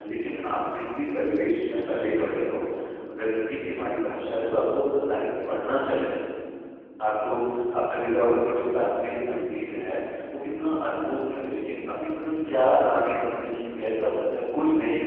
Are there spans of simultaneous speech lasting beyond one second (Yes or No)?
No